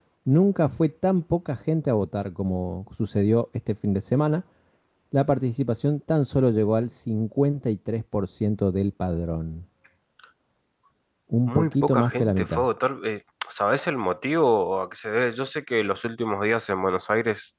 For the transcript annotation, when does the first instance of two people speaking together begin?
11.4 s

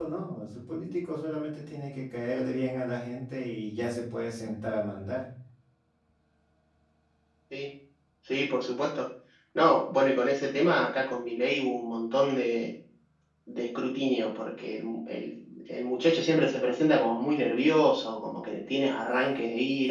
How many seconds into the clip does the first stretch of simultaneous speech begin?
none

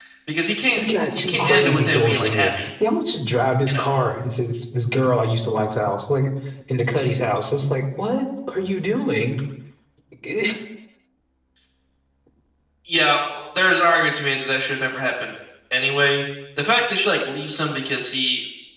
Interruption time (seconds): 0.8 s

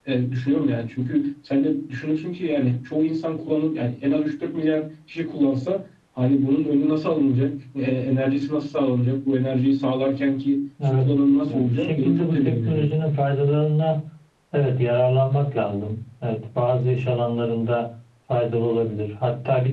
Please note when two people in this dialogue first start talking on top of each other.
10.8 s

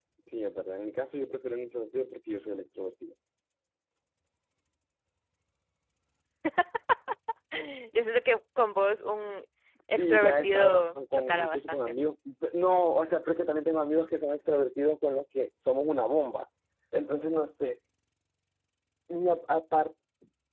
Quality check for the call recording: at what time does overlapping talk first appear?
10.0 s

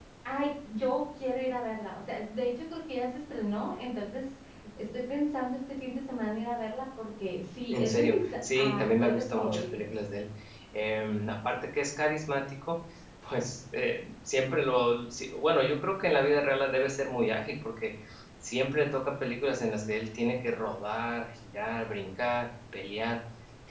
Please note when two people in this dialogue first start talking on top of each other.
7.7 s

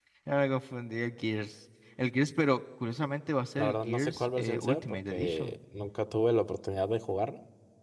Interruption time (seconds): 3.6 s

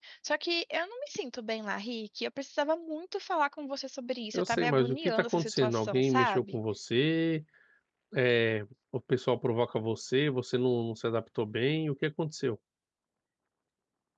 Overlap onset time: 4.3 s

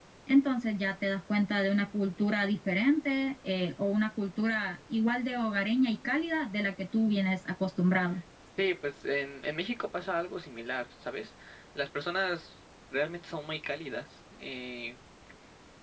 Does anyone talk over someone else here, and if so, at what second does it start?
none

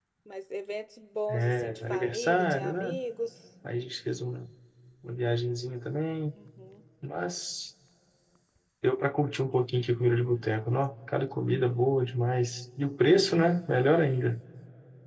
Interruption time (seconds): 1.3 s

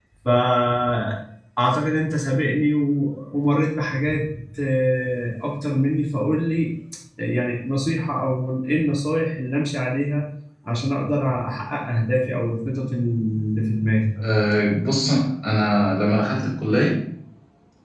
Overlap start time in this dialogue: none

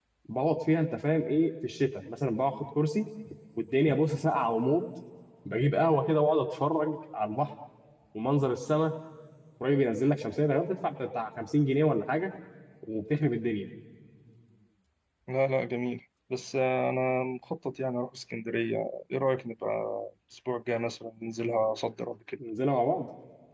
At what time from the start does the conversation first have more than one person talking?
none

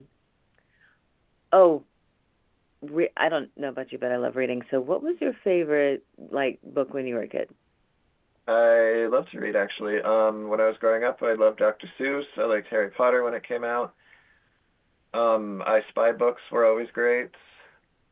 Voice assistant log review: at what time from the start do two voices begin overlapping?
none

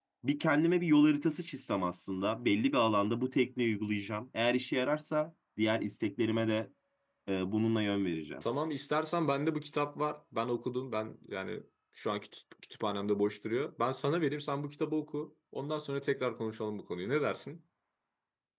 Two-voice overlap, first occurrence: none

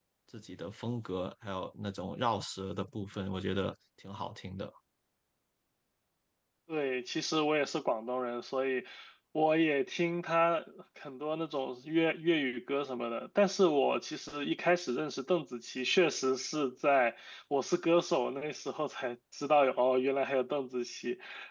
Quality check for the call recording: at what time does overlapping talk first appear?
none

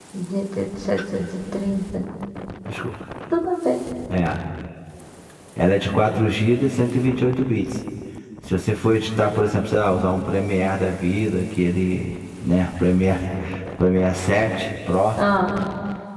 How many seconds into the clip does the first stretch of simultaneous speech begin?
none

